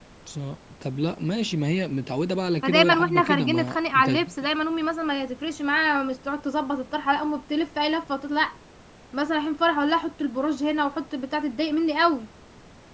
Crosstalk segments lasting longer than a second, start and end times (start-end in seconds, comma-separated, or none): 2.6-4.1